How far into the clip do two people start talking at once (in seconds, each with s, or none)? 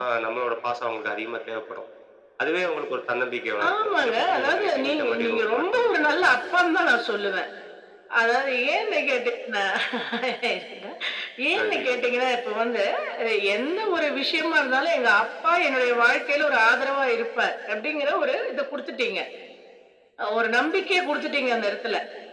3.6 s